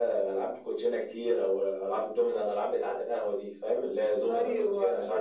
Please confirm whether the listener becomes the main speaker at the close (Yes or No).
Yes